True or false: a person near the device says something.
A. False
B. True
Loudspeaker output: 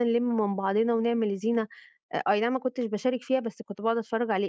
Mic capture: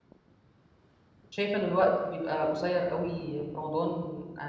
B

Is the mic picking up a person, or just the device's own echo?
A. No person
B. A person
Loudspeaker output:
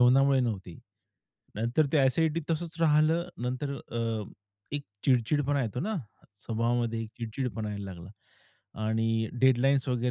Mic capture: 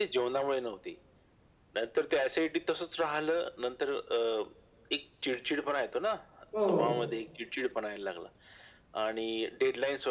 B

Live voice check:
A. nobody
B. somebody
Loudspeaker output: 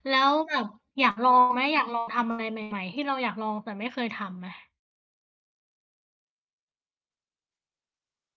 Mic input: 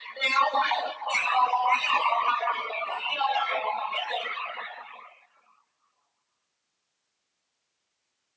A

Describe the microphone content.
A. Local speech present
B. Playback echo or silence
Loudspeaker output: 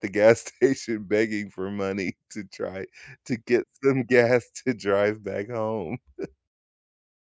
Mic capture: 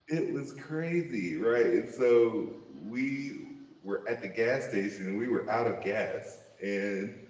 A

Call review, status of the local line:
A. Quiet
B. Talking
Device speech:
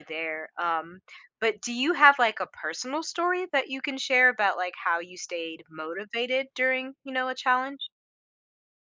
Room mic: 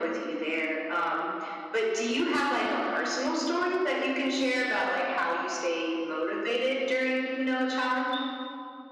A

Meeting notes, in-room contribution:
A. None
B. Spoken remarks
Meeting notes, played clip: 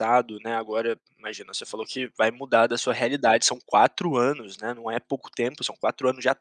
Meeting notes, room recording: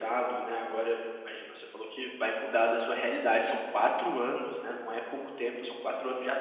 A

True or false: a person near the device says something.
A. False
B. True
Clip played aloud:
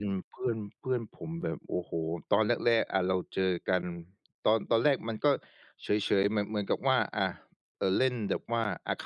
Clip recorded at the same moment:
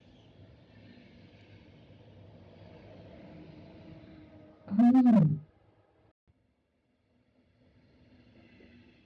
B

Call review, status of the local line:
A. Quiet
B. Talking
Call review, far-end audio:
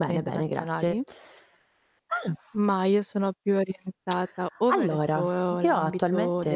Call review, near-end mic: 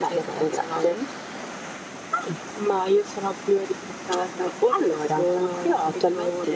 A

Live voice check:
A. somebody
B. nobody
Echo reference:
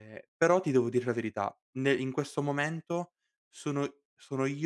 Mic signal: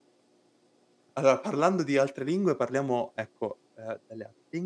A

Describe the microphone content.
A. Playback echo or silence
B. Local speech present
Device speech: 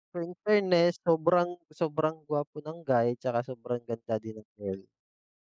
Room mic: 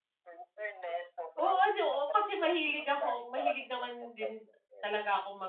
B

